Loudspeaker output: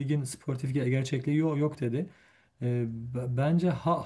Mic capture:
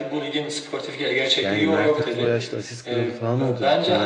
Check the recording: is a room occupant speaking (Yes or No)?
Yes